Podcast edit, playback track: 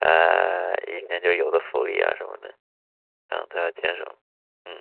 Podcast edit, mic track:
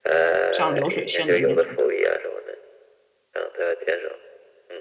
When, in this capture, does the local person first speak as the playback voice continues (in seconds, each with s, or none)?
0.5 s